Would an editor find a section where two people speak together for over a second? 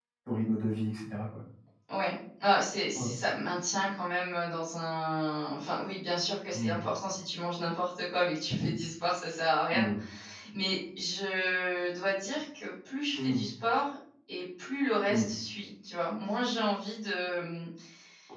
No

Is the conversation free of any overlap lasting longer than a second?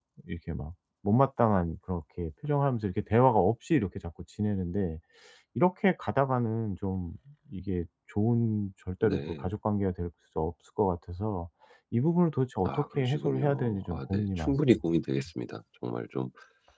No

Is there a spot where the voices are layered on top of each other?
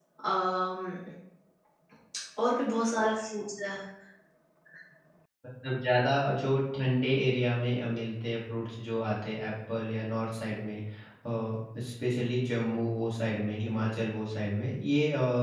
No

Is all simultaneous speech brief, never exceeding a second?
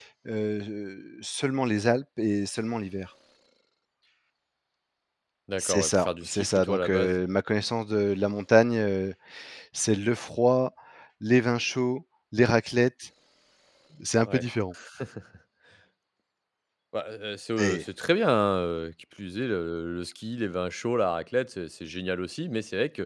No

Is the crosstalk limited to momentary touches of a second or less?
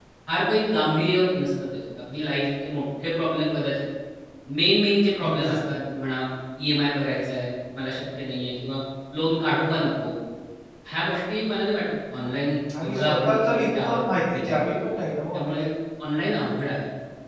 No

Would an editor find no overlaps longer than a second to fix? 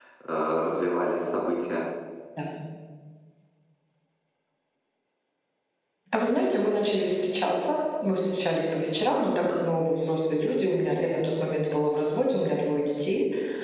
Yes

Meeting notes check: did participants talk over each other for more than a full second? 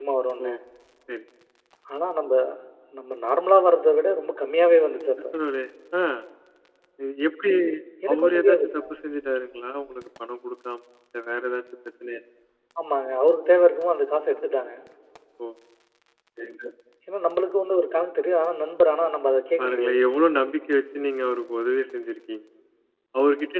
No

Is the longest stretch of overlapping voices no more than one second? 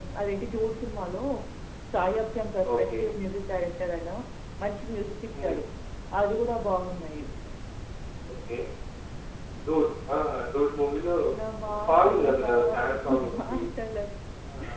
No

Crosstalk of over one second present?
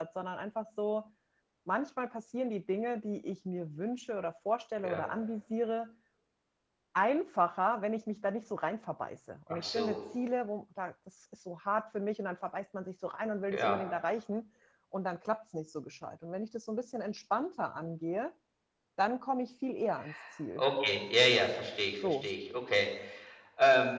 No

